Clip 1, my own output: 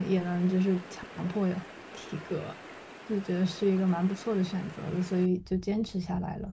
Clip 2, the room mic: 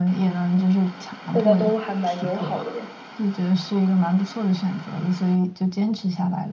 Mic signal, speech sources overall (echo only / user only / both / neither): both